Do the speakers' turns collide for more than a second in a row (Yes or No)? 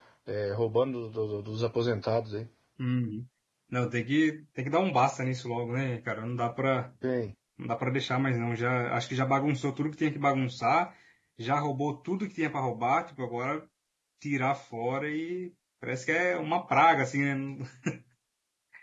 No